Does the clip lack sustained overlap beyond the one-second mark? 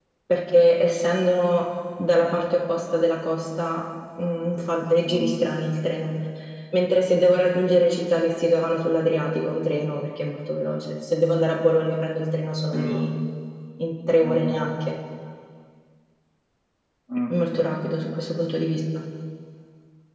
Yes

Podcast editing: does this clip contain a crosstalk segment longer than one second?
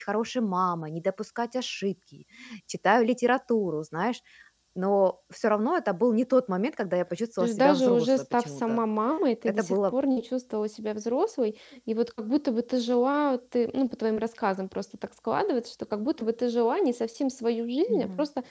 Yes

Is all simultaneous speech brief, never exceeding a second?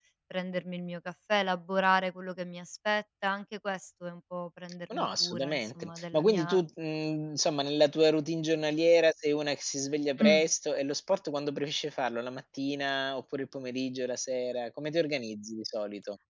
No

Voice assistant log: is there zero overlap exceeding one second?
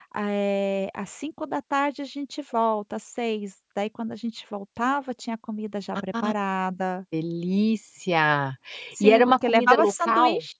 No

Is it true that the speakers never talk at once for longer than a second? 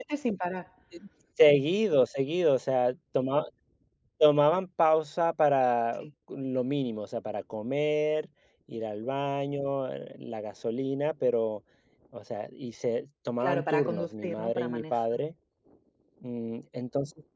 No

